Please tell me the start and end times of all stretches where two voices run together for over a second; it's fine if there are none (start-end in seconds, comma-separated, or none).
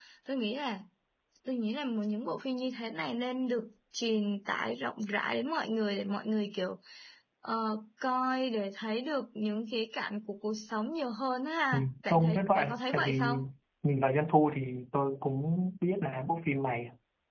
11.7-13.4